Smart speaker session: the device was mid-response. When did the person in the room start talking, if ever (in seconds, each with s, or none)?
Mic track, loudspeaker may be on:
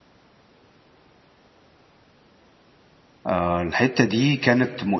3.3 s